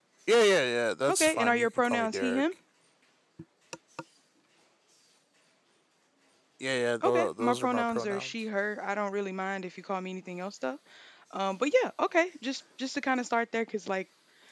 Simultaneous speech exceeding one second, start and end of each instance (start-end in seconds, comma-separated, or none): 1.1-2.4, 7.0-8.3